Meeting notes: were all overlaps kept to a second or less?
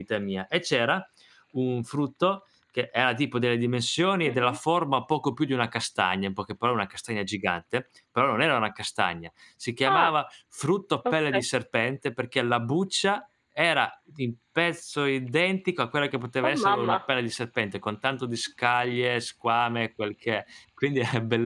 Yes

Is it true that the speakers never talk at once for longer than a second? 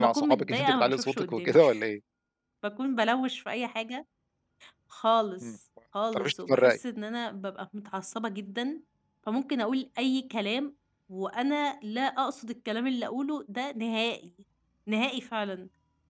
No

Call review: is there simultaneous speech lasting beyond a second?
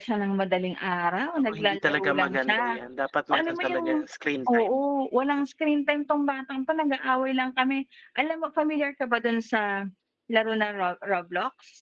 Yes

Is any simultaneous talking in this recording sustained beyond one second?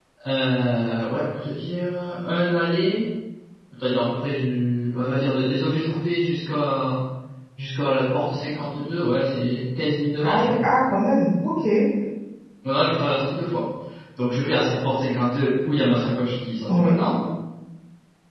No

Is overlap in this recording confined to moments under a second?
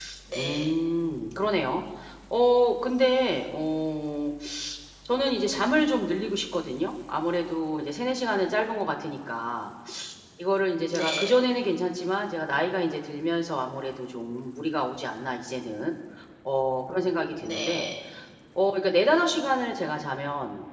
Yes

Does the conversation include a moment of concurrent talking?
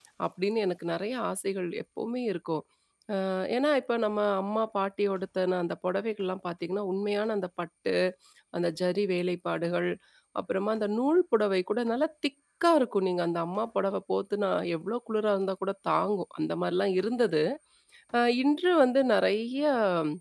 No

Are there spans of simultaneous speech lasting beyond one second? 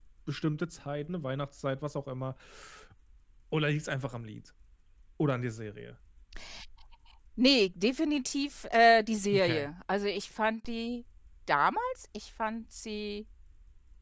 No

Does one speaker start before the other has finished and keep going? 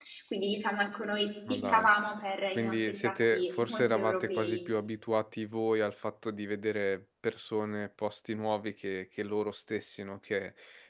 Yes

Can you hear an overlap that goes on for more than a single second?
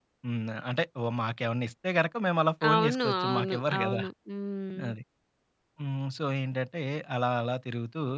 Yes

